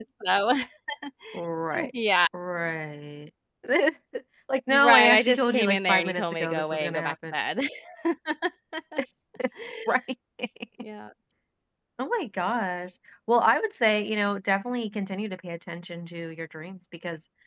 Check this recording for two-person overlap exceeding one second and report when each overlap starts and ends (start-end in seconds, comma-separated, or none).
4.7-7.3